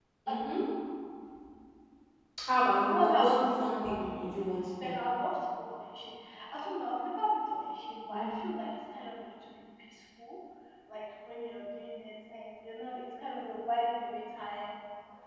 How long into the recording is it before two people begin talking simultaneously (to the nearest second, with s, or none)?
3 s